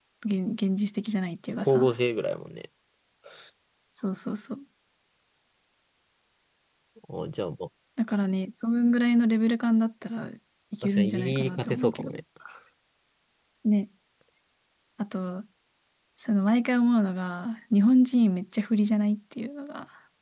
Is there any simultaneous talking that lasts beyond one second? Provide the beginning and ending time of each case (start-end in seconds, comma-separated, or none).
10.8-12.1